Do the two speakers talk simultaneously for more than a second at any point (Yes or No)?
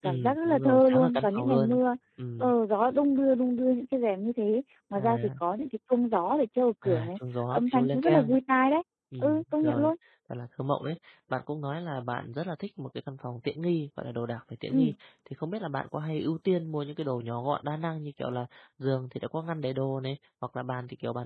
Yes